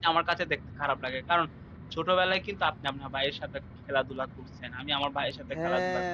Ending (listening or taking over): taking over